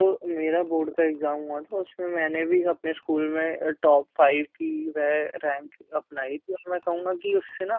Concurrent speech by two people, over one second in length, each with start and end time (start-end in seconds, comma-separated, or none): none